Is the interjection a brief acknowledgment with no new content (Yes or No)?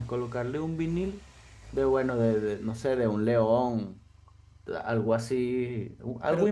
No